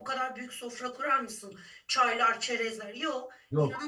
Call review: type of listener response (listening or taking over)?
listening